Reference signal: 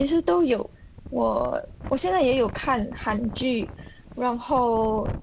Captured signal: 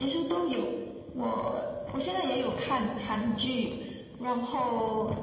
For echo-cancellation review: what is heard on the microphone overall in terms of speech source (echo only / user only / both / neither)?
echo only